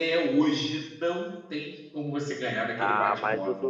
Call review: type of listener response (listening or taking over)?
taking over